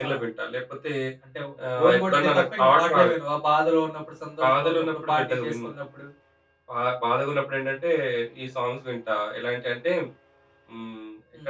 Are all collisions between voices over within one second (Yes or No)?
No